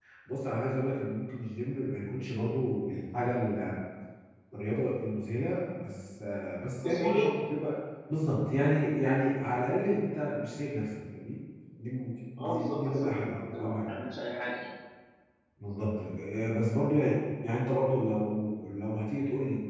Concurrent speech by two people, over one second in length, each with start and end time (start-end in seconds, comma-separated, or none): 12.4-13.9